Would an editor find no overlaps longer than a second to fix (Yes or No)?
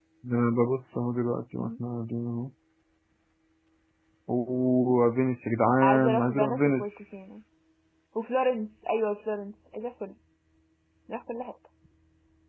No